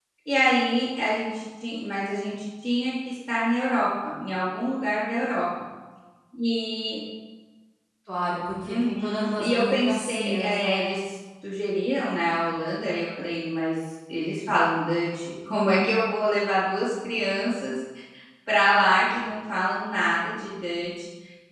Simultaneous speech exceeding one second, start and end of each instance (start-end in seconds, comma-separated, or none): 8.6-10.9